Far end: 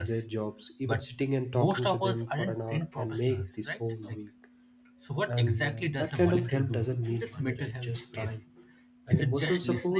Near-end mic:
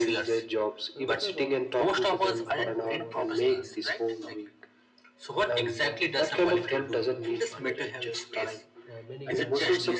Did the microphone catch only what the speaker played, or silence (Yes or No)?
No